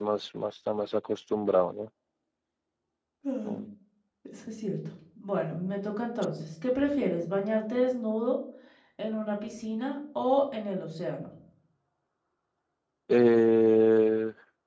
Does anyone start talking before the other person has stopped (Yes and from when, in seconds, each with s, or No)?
No